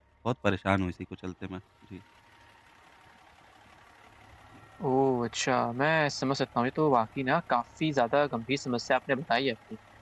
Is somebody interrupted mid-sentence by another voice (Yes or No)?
No